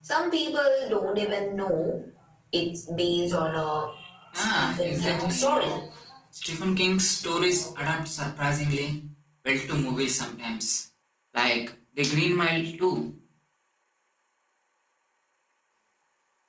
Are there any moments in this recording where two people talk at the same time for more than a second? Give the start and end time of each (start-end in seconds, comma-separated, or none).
4.3-5.7